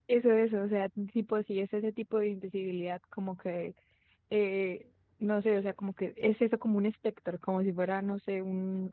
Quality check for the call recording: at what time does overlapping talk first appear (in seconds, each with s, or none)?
none